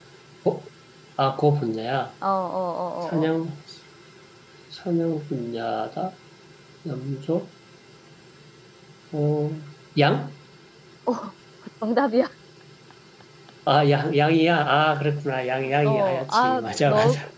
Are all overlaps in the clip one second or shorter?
No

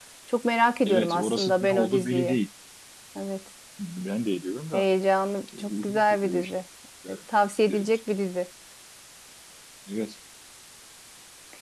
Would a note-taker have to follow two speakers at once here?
Yes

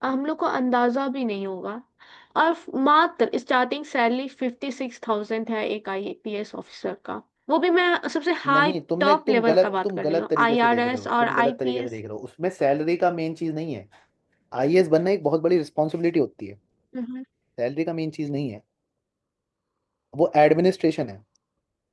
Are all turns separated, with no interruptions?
No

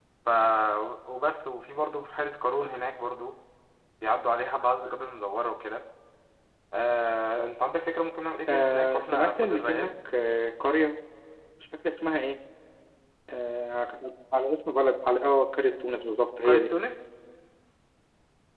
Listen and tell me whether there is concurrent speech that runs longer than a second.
Yes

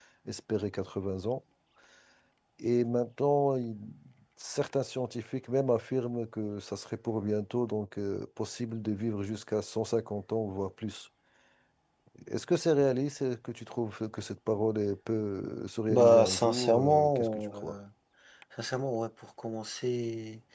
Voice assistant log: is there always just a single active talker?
No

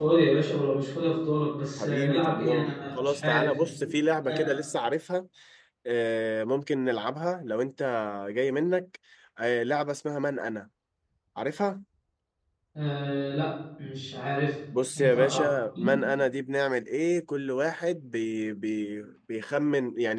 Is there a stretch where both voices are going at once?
Yes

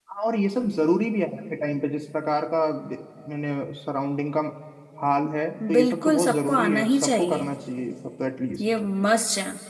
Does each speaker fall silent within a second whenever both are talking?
No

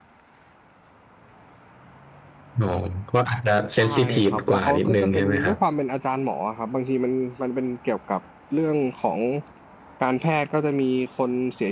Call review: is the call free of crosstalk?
No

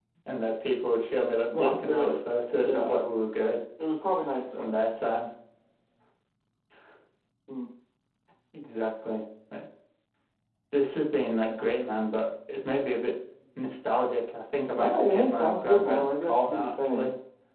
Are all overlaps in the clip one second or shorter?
No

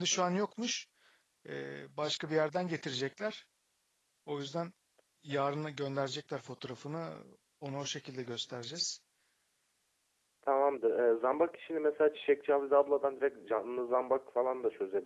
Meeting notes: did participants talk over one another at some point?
No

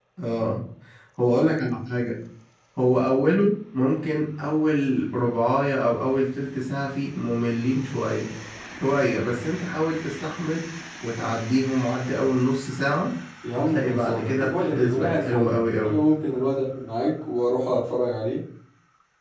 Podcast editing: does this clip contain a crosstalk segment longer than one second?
Yes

